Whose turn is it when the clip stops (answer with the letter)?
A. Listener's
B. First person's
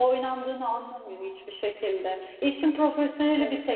B